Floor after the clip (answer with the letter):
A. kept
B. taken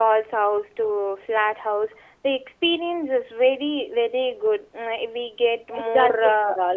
B